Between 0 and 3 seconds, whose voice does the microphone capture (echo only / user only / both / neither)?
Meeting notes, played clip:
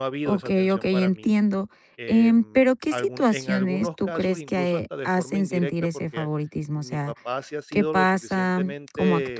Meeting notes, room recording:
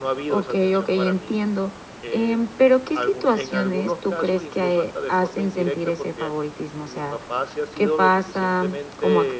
echo only